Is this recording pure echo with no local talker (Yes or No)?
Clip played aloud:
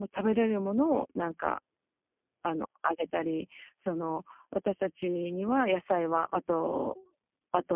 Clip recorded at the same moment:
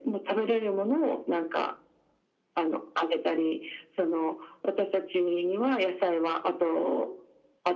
Yes